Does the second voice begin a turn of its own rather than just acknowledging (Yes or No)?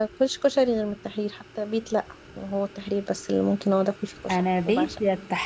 Yes